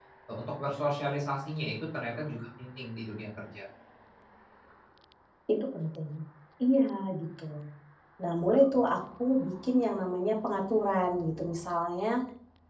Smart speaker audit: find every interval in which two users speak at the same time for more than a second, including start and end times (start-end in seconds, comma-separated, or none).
none